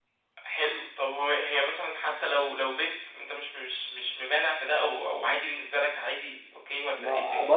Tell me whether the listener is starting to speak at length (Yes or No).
Yes